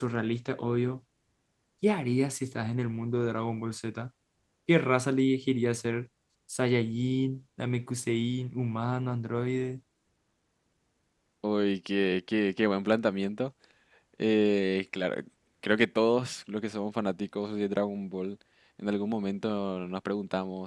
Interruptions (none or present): none